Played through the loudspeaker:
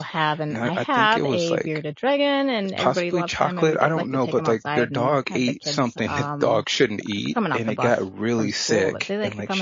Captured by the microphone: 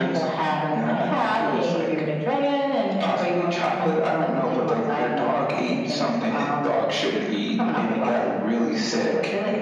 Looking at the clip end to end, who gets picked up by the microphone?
echo only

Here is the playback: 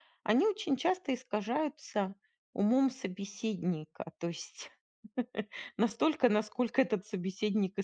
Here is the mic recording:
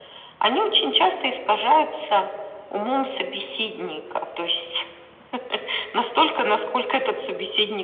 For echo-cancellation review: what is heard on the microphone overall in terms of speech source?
echo only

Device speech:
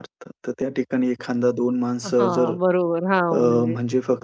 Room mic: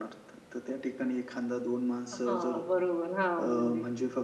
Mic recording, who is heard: echo only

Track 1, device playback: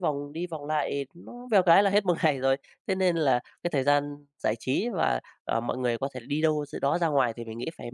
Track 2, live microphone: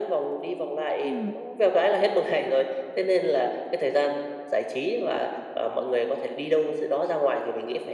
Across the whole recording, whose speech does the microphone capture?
both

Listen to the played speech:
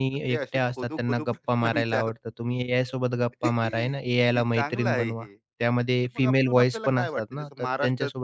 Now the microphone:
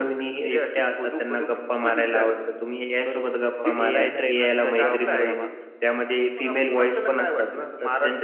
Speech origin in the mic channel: both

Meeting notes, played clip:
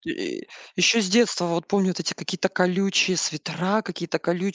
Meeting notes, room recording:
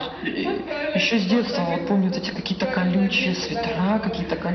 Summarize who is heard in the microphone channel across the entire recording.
both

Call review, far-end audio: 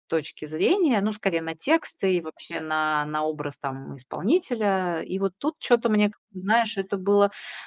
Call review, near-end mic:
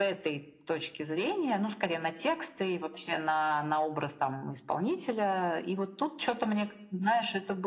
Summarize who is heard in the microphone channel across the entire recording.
echo only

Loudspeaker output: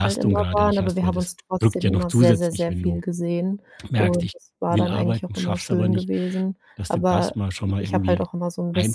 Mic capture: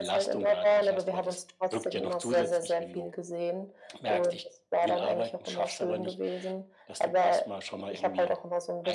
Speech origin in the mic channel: echo only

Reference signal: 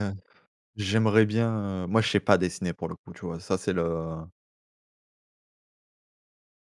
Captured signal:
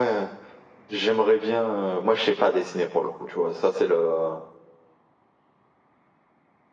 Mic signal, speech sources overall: echo only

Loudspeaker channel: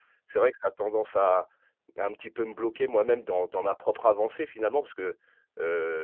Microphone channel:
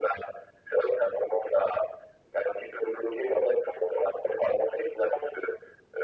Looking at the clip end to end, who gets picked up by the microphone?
echo only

